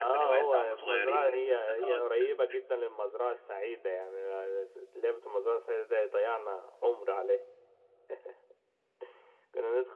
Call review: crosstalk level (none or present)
present